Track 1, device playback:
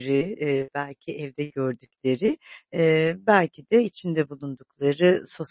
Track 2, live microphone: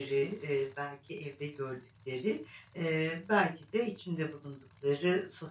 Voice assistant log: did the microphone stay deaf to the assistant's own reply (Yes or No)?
No